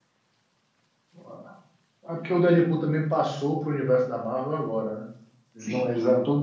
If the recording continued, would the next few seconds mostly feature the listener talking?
No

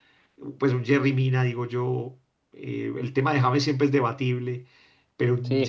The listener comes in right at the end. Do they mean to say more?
No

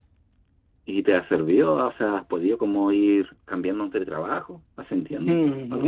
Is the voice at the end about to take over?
Yes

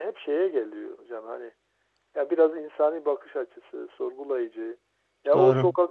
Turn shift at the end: No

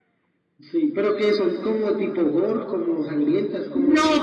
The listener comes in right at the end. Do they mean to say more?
Yes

